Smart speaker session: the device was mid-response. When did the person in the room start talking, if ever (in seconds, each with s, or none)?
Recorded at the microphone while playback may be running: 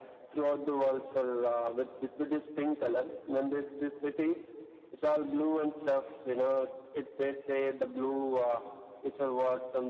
none